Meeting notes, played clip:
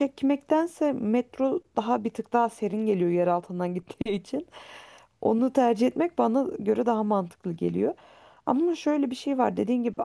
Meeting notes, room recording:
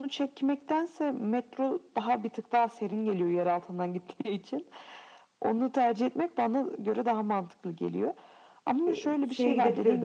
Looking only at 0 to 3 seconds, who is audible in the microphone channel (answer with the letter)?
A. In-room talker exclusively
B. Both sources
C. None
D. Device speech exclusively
D